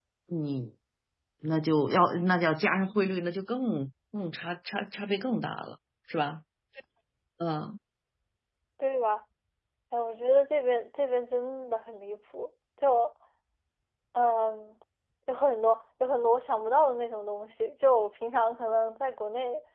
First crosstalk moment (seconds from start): none

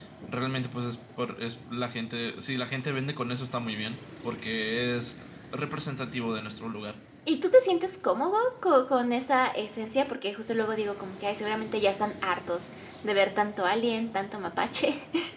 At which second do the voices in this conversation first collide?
none

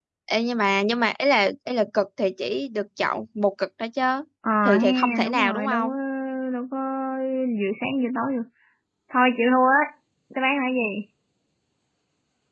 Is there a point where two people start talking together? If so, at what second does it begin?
4.6 s

